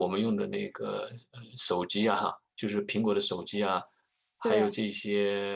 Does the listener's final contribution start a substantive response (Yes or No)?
No